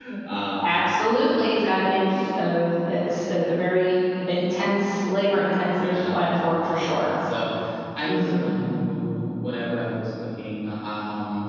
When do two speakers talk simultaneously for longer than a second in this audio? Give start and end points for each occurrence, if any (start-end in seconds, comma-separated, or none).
none